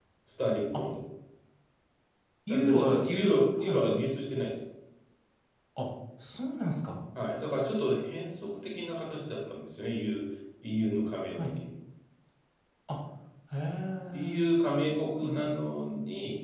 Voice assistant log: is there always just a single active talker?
No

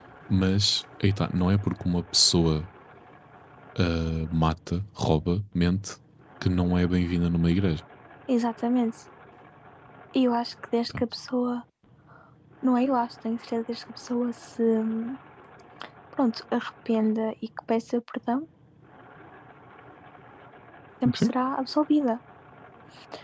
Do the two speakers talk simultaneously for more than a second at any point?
No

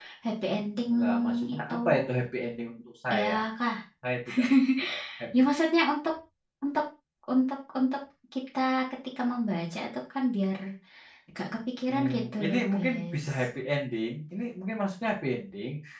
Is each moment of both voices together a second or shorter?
No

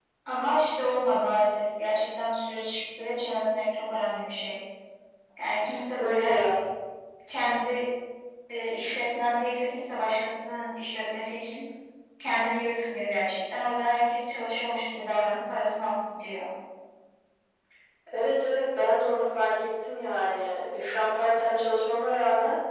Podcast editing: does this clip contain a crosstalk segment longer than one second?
No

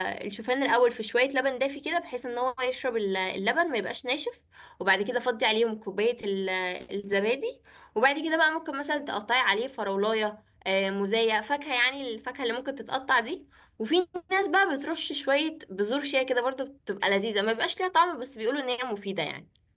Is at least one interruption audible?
No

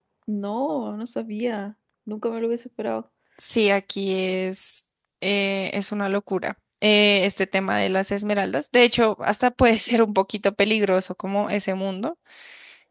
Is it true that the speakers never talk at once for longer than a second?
Yes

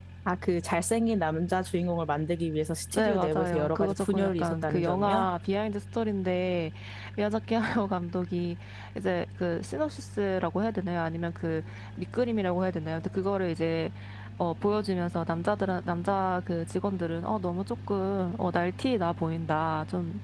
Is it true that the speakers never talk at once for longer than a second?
No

